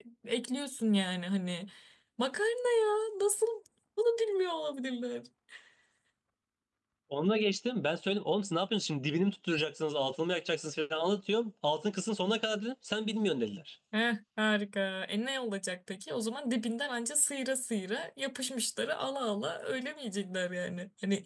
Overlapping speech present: No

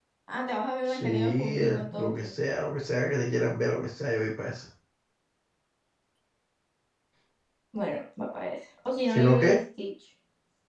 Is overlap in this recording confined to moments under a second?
No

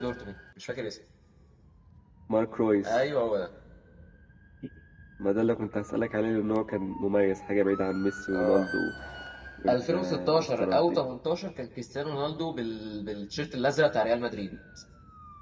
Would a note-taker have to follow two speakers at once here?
Yes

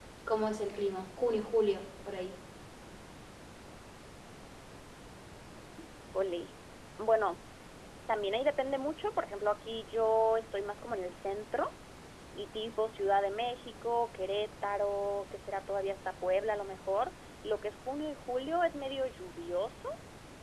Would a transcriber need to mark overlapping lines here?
No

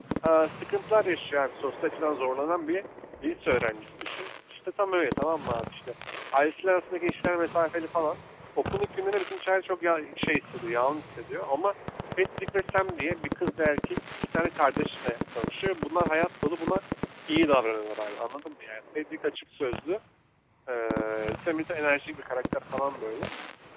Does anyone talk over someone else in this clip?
No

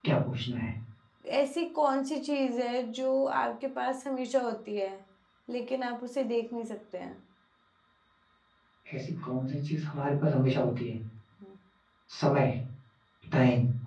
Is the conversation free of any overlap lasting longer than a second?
Yes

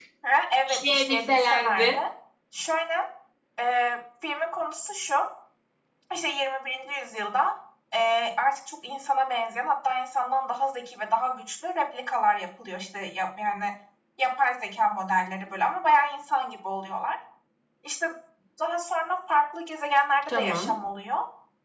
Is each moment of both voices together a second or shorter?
No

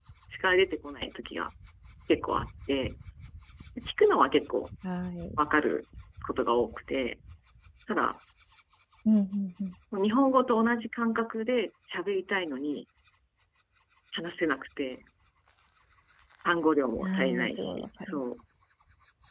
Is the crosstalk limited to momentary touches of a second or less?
No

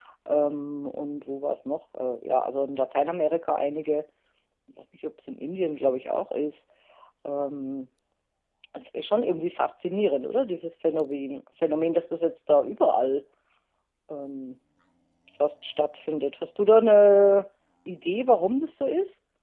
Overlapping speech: No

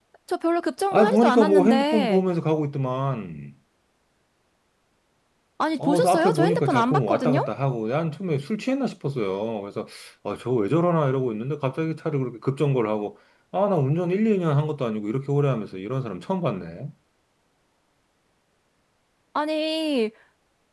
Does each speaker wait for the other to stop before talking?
No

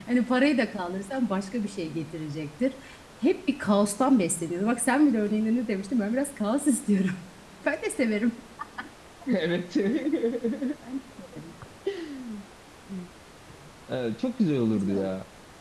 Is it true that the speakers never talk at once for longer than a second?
Yes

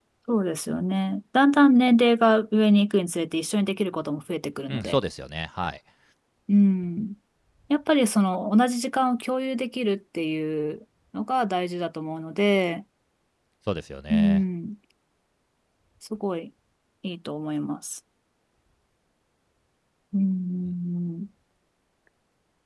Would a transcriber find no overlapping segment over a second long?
Yes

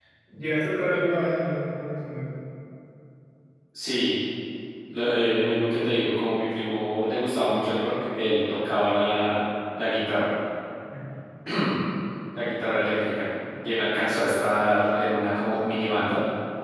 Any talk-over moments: No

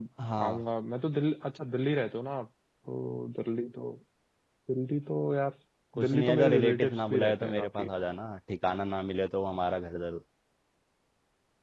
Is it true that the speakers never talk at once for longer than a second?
No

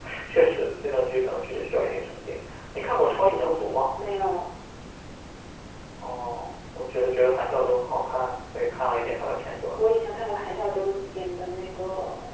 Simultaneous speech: No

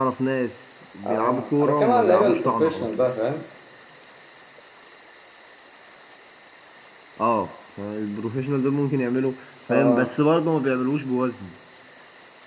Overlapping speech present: Yes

